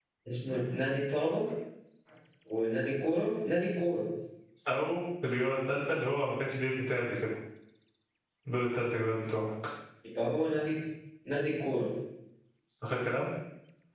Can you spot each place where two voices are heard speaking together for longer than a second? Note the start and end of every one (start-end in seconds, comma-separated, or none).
none